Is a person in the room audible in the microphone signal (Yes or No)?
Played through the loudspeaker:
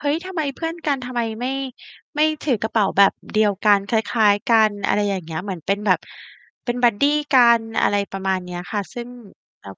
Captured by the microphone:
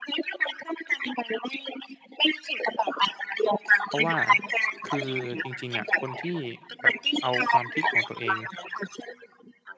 Yes